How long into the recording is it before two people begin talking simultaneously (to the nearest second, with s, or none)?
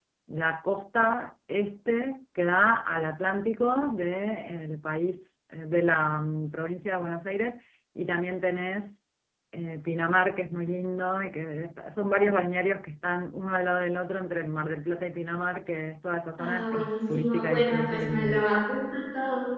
16 s